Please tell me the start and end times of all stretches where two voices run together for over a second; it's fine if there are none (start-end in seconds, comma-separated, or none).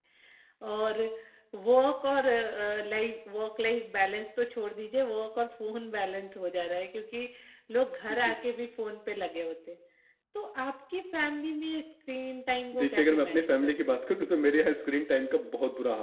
12.7-14.0